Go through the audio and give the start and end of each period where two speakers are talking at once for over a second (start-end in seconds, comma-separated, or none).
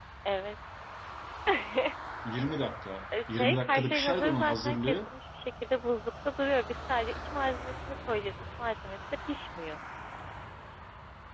3.3-5.1